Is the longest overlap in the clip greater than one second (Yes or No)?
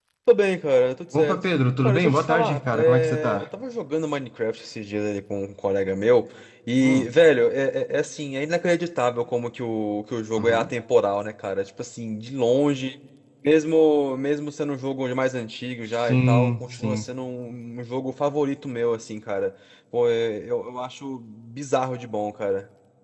Yes